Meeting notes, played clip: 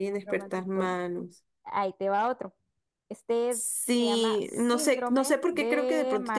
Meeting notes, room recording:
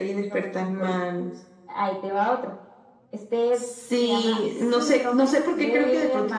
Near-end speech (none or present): none